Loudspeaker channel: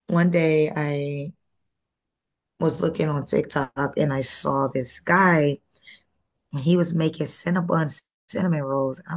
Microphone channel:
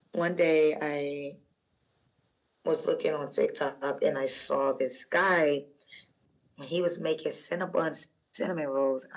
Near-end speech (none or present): none